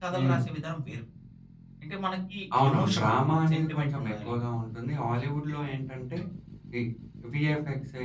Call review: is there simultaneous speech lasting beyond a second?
Yes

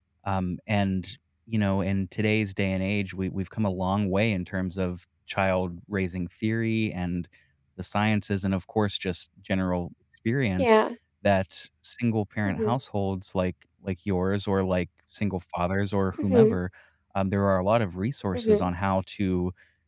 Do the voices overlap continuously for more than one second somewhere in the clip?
No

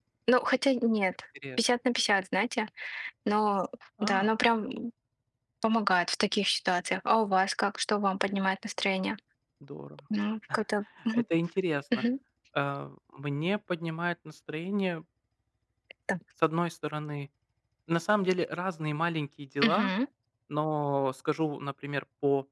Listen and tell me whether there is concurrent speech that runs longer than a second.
No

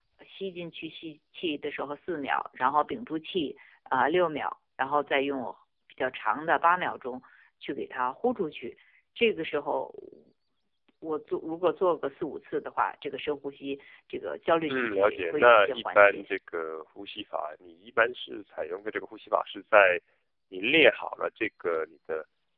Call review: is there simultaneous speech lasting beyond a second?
Yes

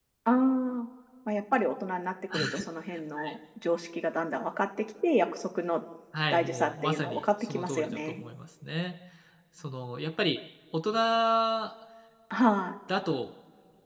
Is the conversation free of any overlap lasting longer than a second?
No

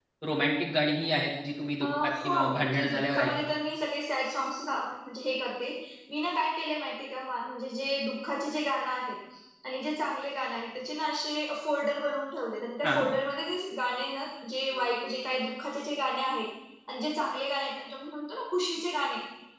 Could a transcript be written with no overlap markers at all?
No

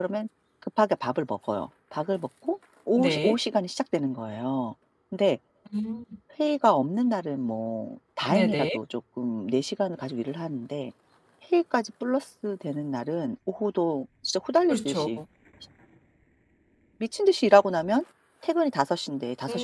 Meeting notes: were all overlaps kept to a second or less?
Yes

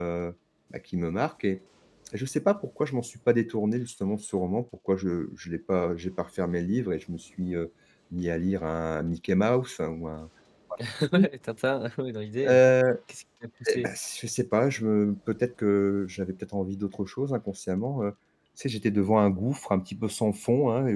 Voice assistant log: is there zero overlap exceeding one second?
Yes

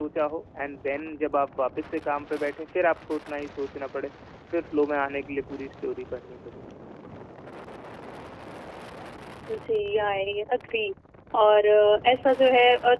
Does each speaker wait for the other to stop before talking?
Yes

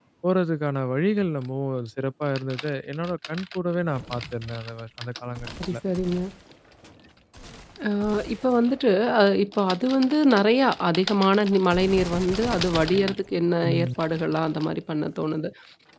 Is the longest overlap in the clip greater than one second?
No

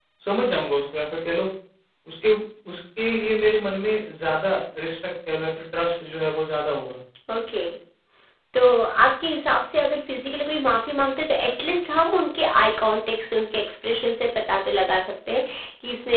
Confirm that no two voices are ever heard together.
Yes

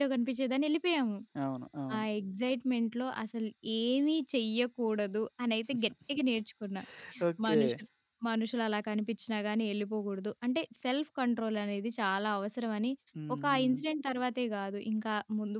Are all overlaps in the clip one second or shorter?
Yes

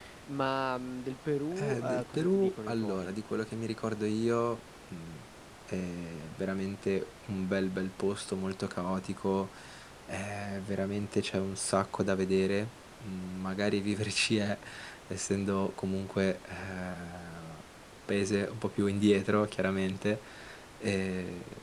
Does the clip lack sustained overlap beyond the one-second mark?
No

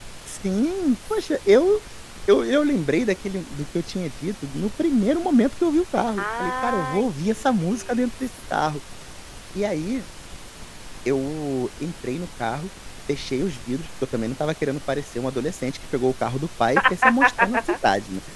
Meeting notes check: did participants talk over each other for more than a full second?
Yes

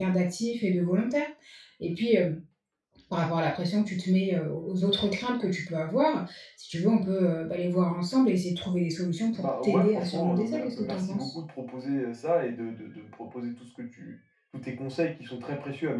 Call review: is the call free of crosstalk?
No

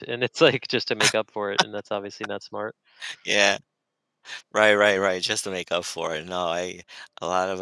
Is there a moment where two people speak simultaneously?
No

